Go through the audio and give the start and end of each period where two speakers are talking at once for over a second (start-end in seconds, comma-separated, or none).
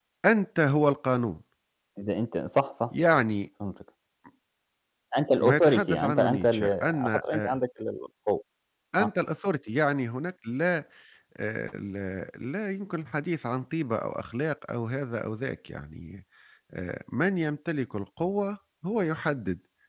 5.4-7.5